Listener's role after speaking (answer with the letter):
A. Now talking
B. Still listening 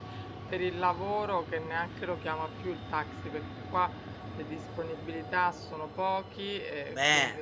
B